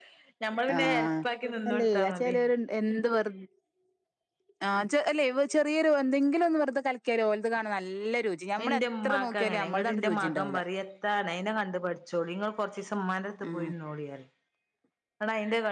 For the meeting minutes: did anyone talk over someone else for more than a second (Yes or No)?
Yes